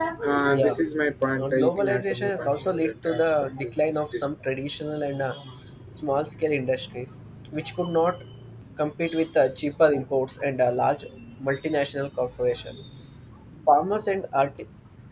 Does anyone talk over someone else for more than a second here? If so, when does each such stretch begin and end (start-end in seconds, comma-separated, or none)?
1.4-3.7